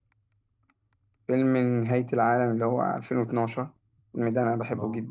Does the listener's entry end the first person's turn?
Yes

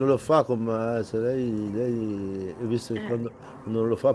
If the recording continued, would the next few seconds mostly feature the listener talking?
No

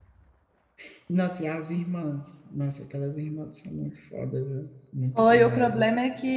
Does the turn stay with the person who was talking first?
No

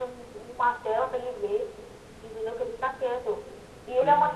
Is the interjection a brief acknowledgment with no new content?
Yes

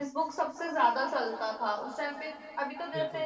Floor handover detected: No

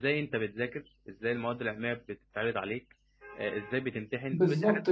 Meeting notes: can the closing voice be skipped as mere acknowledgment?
No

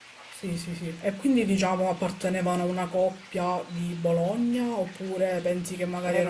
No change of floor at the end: No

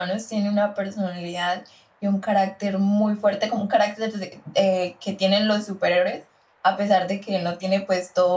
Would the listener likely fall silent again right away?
Yes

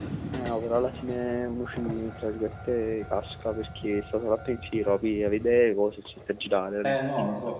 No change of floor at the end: No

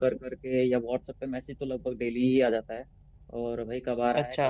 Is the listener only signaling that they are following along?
Yes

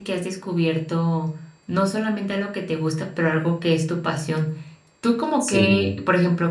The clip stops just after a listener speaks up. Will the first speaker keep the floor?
Yes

